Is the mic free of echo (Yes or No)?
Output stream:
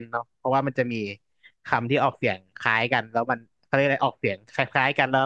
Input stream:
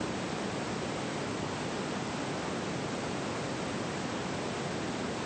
Yes